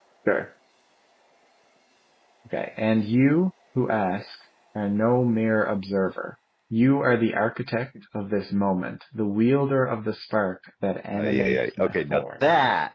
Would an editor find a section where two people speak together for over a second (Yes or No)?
Yes